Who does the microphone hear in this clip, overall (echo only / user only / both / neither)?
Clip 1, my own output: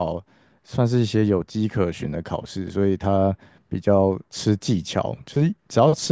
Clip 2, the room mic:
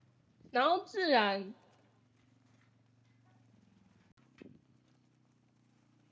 user only